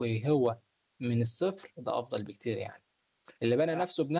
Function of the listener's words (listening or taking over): listening